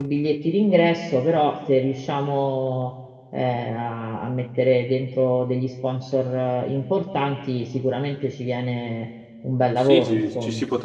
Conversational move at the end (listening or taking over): taking over